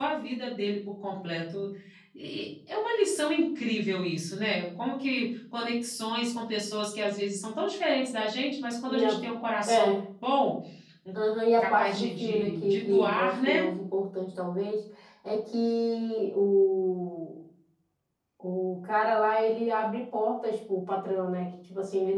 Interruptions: present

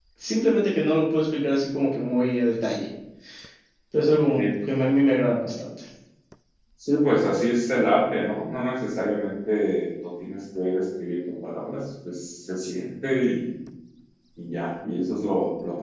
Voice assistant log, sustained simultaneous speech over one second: none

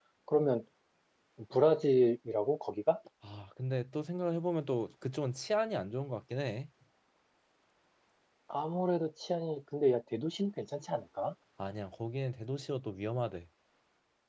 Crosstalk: none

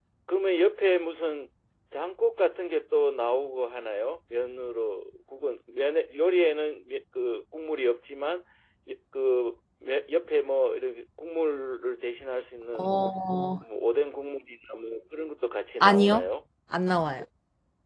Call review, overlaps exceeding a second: none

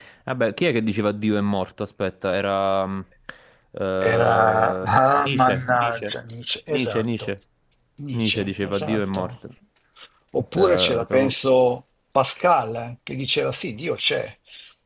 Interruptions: present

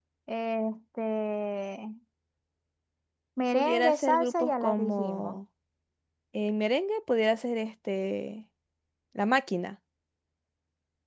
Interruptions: present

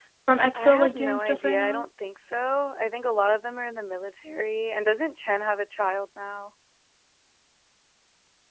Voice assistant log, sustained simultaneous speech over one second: present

